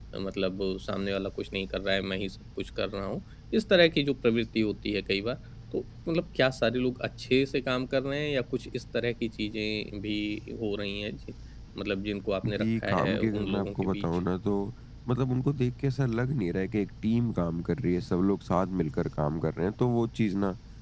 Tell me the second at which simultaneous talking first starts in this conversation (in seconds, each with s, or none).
12.4 s